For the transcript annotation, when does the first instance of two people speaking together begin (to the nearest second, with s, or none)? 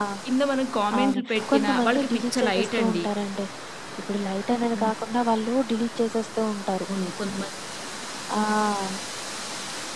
1 s